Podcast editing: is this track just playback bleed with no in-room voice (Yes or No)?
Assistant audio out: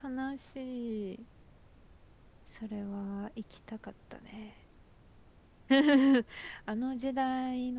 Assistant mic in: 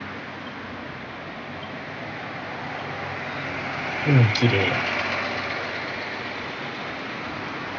No